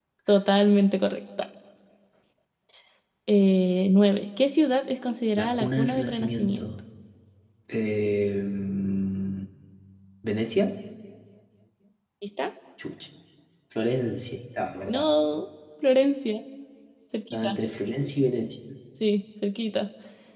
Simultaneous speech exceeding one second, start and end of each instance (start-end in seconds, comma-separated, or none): 5.4-6.6